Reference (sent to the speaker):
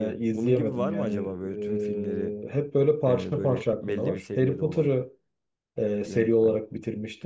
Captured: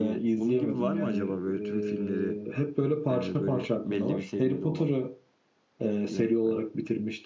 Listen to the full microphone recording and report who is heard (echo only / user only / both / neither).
echo only